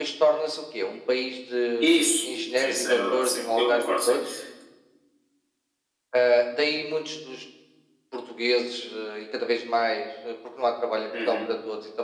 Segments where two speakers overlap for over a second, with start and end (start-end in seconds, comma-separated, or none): 2.6-4.2